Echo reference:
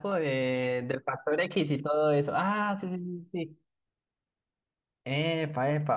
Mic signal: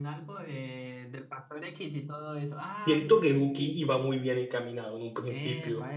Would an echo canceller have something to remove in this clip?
Yes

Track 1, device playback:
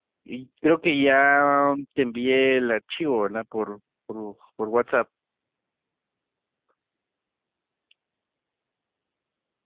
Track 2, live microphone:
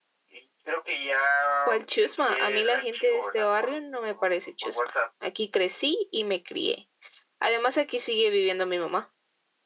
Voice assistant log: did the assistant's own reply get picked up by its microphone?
Yes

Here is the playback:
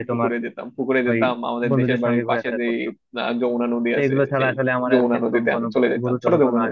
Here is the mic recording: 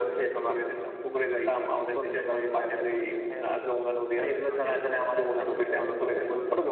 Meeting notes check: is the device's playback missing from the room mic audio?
No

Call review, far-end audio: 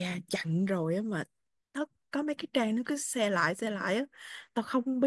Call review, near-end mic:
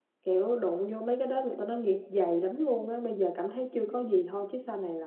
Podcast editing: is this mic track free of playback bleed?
Yes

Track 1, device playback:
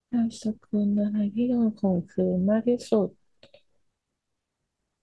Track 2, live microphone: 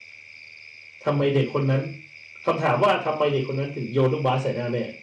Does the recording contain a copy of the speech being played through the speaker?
No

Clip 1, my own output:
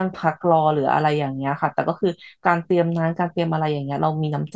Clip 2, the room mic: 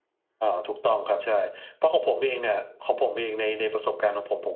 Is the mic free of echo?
Yes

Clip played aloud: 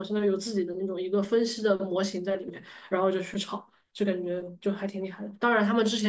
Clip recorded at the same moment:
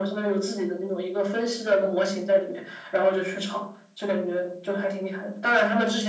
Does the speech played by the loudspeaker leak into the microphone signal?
Yes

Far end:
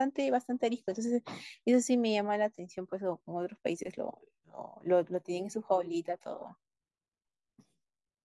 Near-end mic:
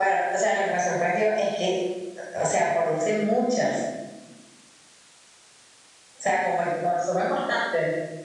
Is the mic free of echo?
Yes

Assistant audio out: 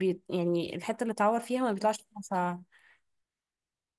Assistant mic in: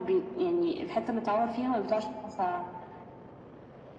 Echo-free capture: No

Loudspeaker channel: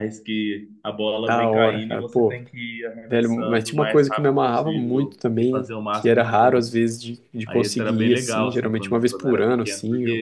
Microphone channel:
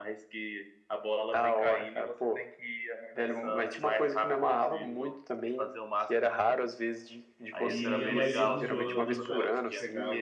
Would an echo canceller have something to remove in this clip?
Yes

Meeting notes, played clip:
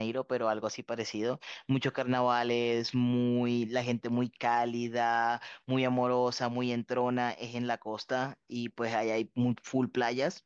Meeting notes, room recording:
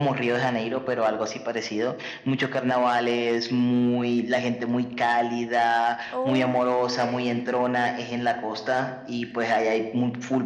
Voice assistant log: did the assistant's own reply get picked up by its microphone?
Yes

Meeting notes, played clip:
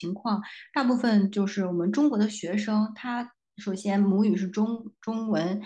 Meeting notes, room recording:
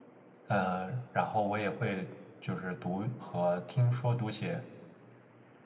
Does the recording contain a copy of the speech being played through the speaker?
No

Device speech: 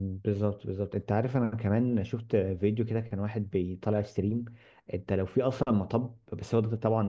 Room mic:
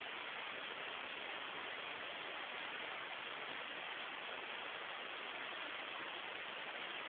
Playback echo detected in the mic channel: No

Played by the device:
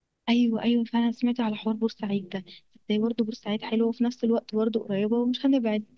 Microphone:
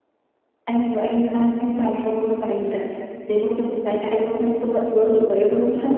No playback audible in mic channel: No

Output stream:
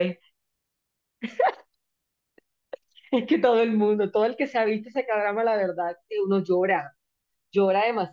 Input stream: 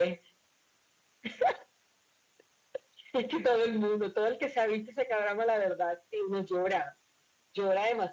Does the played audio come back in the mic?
Yes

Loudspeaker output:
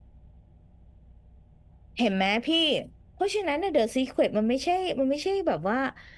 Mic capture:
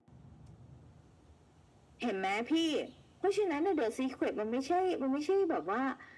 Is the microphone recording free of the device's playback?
No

